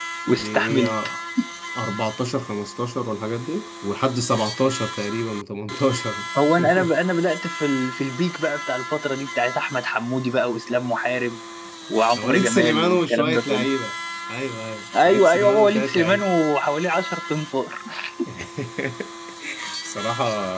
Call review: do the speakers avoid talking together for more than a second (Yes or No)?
No